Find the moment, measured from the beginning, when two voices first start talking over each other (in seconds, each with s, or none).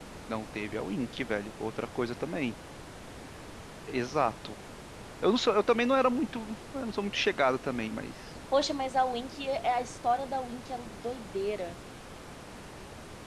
none